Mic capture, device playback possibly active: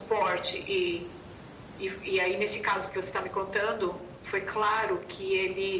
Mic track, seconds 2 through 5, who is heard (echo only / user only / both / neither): echo only